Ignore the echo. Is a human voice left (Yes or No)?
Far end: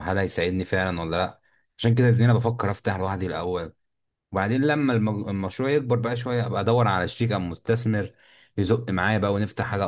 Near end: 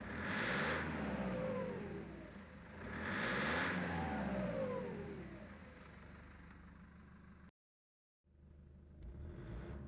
No